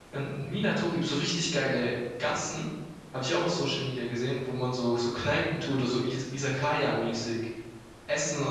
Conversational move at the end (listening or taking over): taking over